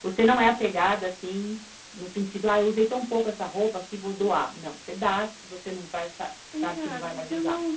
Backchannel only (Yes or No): No